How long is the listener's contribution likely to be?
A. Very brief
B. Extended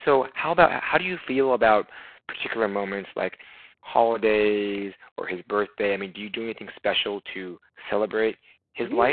B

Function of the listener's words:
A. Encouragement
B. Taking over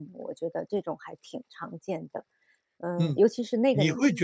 B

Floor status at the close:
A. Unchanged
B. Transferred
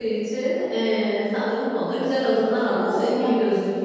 A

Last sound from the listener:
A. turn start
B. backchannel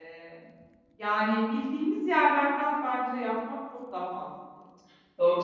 A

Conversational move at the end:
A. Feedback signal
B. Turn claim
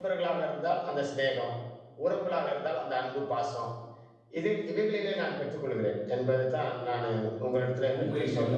B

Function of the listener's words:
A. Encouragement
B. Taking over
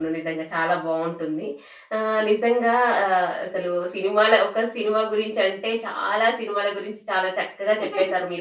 A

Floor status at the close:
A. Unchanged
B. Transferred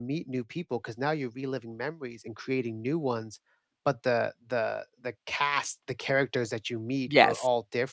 A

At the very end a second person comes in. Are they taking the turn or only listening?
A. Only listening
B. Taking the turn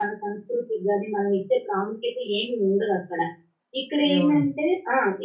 A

